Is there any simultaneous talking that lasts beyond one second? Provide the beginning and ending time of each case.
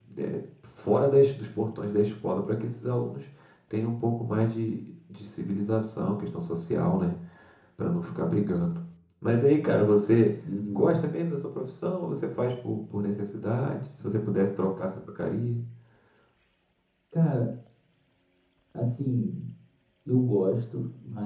none

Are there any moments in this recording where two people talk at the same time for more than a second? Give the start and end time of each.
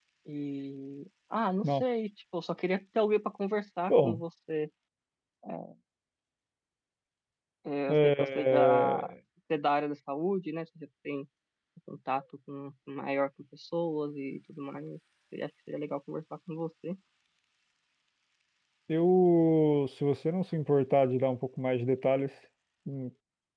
7.9-9.1

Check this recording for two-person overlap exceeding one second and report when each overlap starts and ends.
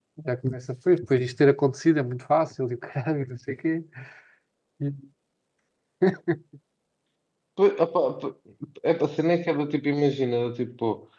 none

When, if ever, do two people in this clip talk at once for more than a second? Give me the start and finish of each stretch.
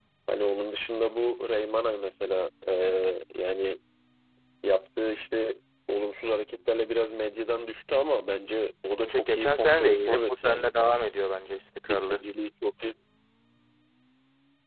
9.0-10.7

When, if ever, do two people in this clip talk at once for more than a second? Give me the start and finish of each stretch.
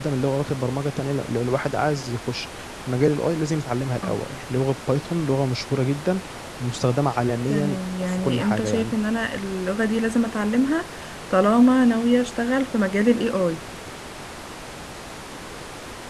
7.5-9.0

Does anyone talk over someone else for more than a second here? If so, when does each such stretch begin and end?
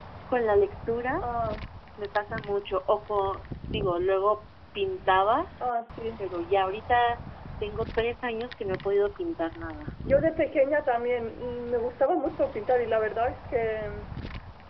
none

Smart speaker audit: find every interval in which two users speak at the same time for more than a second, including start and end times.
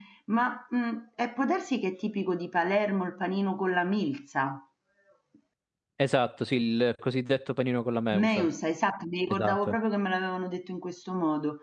none

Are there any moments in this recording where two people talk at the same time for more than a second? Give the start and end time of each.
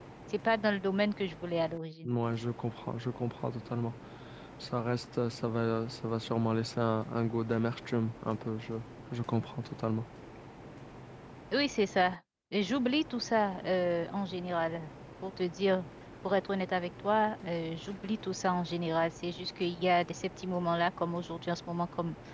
none

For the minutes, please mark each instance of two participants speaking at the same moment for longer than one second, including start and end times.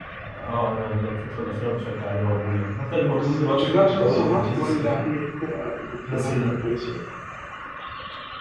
3.1-5.0

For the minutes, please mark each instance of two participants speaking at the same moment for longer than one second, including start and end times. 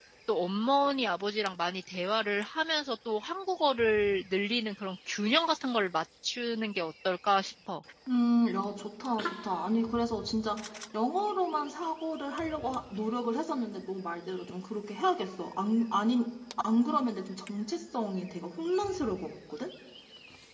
none

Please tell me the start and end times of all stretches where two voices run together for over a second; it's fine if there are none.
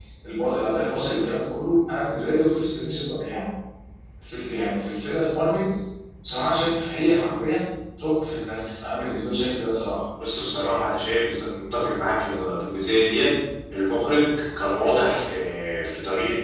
none

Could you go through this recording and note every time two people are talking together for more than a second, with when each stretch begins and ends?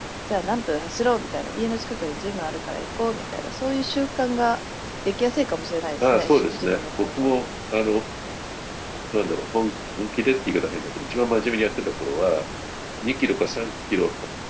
6.0-7.3

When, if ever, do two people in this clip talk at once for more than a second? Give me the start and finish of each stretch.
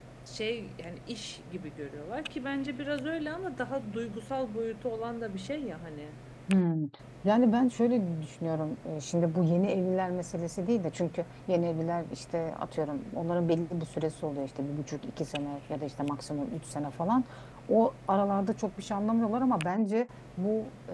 none

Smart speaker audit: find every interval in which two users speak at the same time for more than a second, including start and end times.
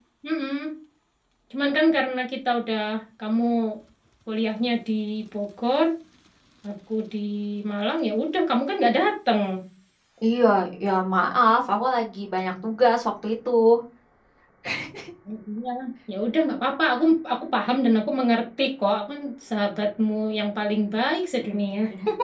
none

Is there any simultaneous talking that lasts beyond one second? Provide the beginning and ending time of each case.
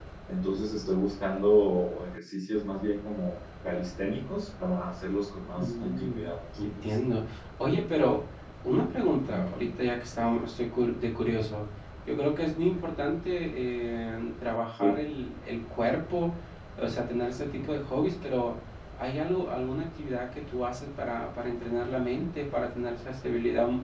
5.5-6.9

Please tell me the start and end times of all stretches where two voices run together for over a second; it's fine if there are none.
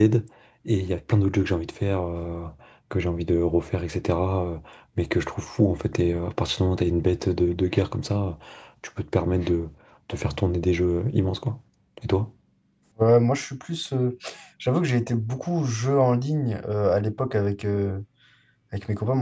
none

